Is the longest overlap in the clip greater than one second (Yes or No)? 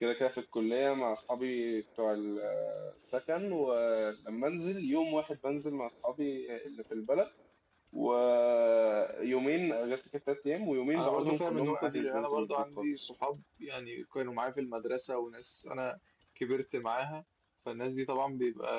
Yes